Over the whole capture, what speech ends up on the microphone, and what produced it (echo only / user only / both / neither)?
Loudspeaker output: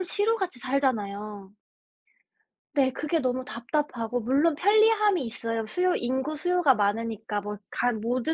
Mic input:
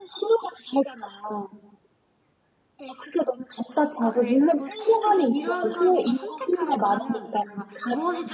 both